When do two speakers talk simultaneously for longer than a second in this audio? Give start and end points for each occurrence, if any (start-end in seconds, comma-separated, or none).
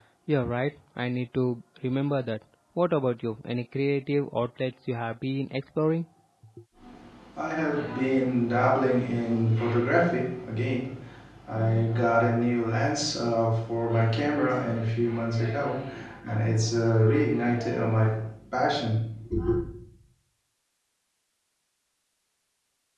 none